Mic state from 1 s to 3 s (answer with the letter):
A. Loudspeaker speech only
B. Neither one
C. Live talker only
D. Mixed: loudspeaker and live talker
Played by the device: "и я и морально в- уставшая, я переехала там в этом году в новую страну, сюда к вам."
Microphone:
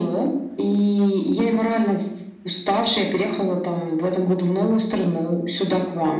A